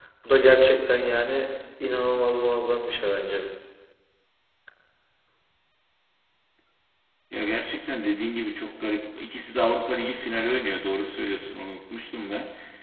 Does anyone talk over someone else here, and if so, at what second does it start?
none

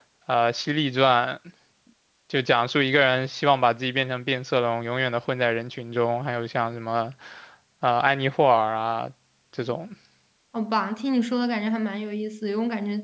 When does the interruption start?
none

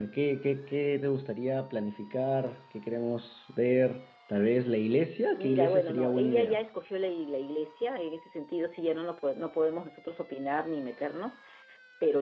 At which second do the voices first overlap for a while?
5.4 s

